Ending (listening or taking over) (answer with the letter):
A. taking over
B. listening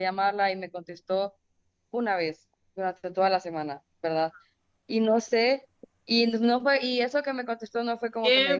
A